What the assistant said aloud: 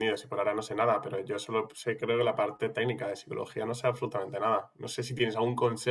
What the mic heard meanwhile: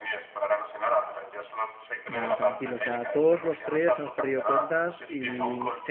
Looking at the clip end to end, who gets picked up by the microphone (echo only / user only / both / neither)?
both